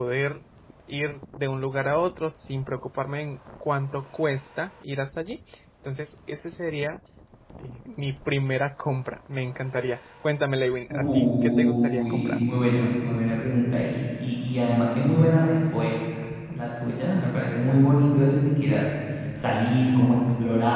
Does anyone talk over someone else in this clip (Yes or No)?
Yes